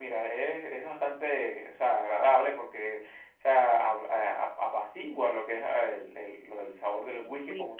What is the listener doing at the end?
listening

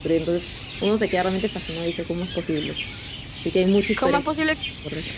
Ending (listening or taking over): taking over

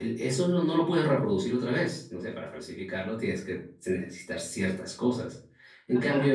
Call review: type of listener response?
listening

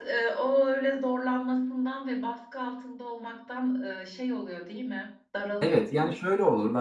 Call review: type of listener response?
taking over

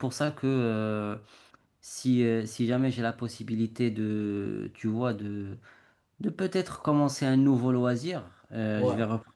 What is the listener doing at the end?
listening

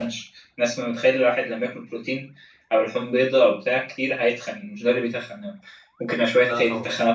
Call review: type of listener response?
listening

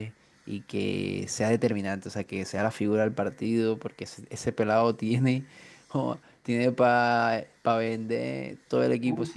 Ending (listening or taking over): taking over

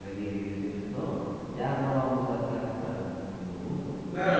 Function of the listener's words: taking over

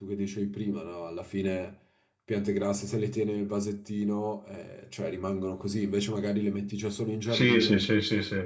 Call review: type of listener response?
taking over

